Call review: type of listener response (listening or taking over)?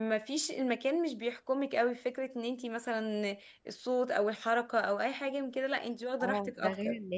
taking over